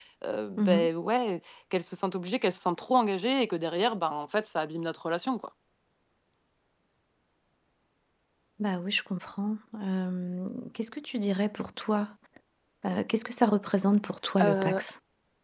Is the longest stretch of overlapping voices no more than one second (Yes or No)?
Yes